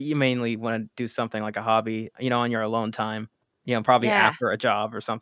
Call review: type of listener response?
listening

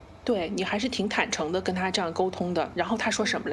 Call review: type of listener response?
taking over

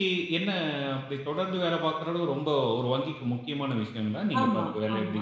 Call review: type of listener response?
taking over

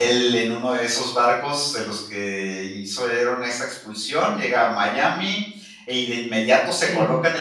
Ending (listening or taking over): listening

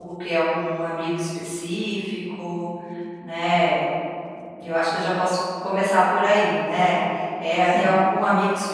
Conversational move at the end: listening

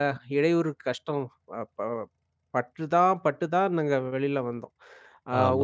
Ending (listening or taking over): taking over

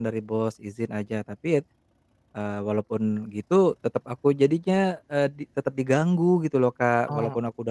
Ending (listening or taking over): listening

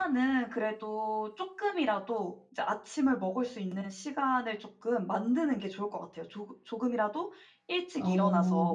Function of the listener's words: listening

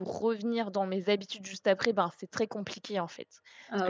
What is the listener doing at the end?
listening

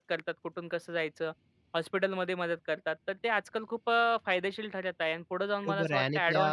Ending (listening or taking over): taking over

